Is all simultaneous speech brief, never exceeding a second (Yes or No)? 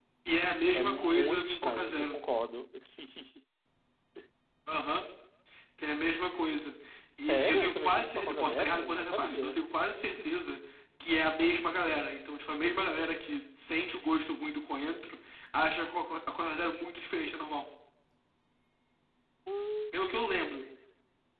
No